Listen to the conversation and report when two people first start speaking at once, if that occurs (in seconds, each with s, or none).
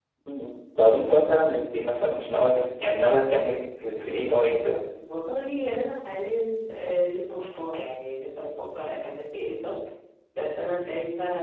none